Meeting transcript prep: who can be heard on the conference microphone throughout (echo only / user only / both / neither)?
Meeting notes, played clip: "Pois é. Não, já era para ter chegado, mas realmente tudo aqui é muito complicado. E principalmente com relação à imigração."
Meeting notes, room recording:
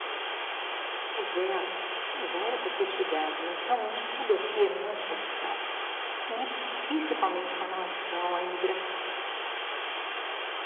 echo only